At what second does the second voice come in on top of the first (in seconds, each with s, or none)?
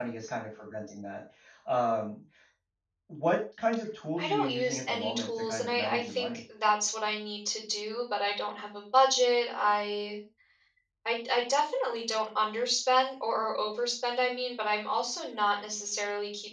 4.2 s